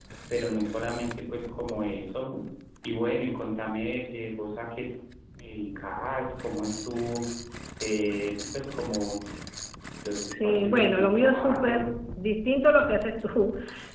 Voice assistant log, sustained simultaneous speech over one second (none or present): present